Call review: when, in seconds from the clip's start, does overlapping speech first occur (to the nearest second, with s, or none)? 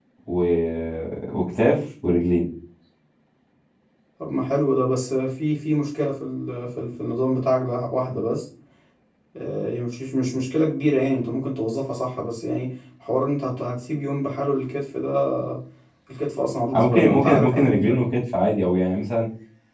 17 s